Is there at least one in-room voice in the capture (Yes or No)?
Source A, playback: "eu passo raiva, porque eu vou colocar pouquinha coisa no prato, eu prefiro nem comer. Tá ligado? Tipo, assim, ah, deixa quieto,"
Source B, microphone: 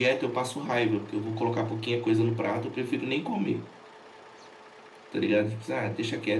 No